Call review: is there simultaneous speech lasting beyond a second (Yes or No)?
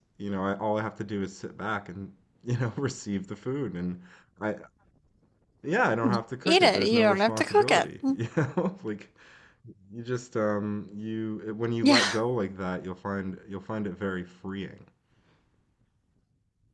Yes